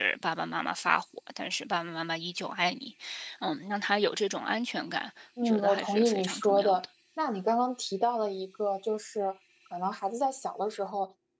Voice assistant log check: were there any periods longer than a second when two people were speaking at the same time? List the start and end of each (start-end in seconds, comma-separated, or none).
5.4-6.8